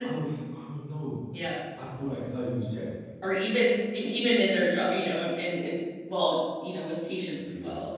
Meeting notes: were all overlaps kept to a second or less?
Yes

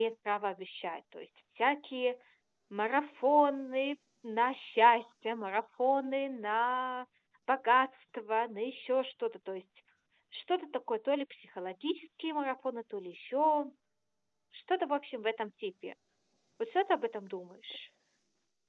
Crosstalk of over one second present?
No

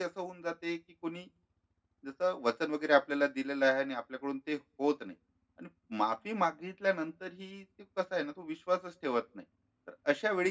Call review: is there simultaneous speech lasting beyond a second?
No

